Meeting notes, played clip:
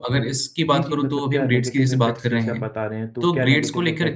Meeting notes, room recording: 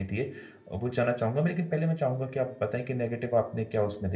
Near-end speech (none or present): present